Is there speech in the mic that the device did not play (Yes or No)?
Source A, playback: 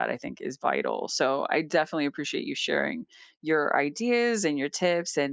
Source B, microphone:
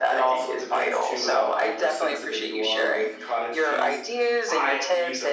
Yes